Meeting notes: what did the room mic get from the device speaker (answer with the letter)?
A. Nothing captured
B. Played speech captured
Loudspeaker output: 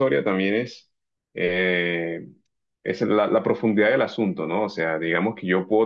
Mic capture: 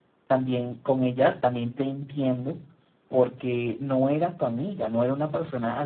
A